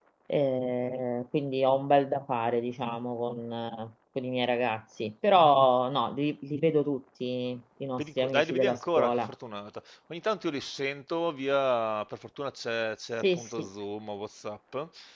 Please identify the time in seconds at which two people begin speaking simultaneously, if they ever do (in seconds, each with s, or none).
8.0 s